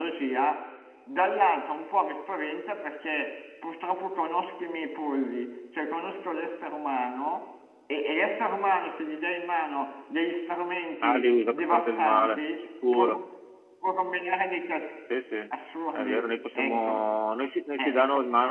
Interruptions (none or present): present